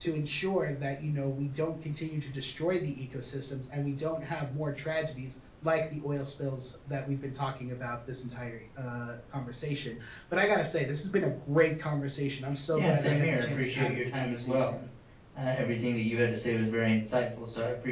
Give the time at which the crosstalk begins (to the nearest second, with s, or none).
13 s